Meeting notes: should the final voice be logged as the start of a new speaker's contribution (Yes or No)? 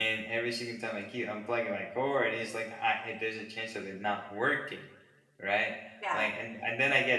No